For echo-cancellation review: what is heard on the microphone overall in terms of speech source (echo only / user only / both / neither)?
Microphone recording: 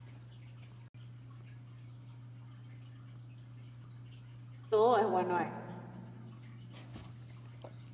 user only